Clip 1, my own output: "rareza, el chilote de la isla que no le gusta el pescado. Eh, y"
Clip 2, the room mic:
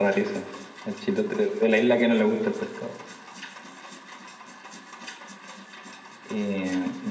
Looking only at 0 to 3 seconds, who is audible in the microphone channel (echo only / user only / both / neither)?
echo only